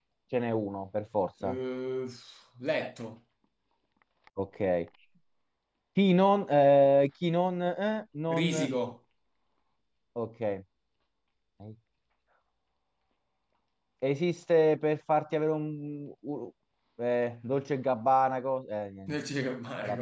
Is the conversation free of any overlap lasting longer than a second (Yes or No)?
Yes